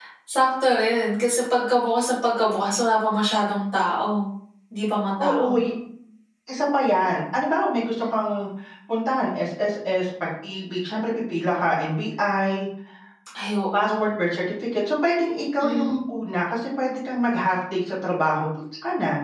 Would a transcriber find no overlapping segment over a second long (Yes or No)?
Yes